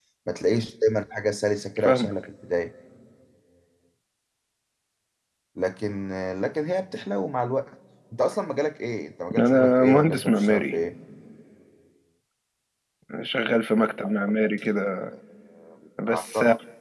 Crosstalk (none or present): present